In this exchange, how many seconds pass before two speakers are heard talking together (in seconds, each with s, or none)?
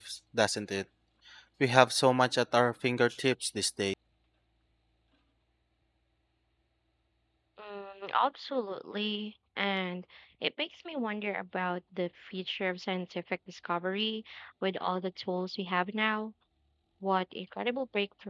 none